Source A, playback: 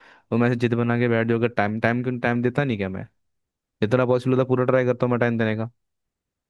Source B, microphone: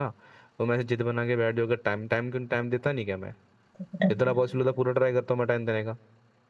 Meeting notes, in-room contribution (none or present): present